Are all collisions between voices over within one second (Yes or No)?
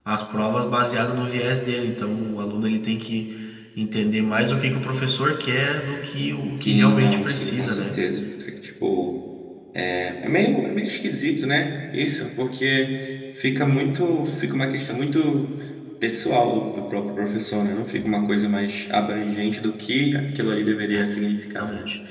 No